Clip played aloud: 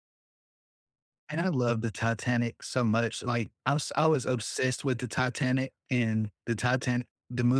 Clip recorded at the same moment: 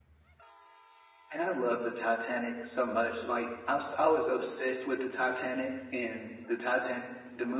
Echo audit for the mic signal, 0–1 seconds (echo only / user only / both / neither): neither